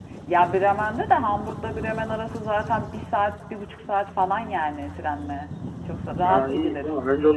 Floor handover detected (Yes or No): Yes